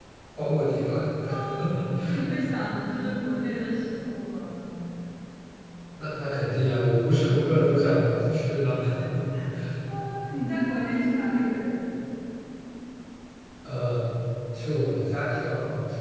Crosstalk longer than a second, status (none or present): none